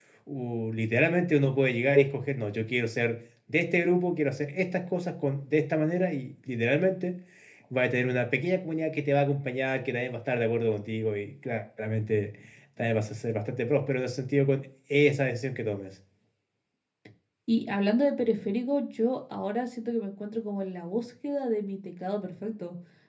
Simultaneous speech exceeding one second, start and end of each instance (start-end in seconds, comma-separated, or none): none